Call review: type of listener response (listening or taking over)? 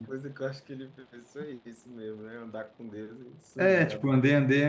taking over